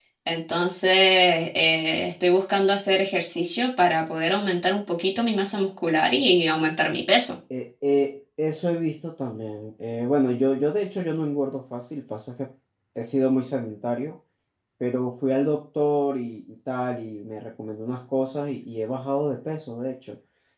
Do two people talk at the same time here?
No

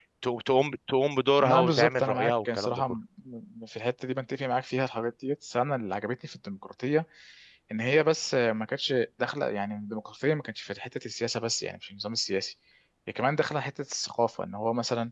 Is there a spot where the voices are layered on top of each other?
Yes, from 1.4 s

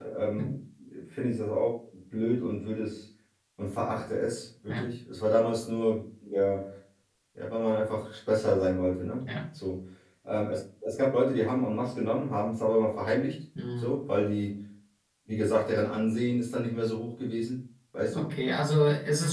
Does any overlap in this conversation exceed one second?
No

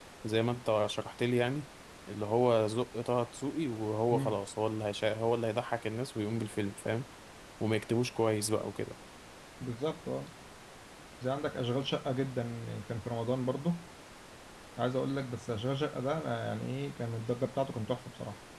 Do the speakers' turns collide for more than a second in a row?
No

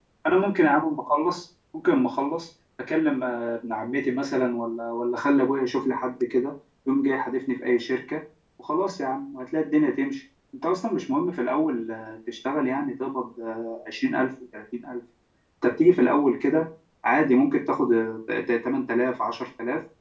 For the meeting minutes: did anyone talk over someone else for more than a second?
No

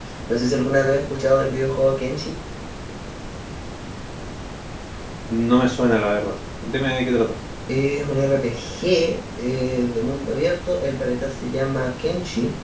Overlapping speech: No

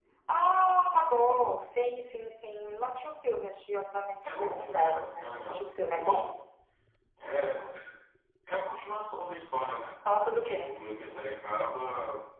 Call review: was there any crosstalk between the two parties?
Yes, from 4.4 s

